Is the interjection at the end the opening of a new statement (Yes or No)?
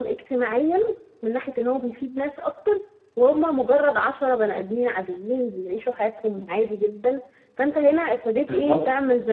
No